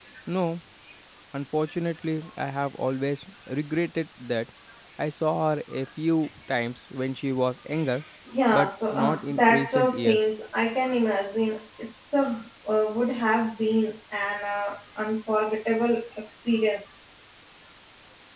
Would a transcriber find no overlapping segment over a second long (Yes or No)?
No